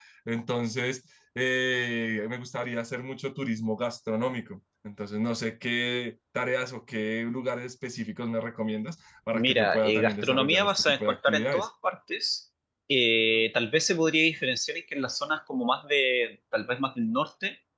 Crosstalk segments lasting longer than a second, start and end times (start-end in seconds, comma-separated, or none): 9.3-11.7